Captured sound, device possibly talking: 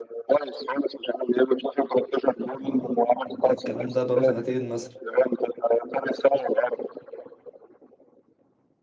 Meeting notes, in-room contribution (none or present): present